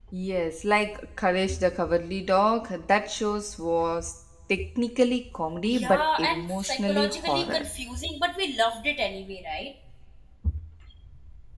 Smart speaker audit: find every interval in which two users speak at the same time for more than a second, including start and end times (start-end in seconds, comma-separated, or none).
5.7-7.6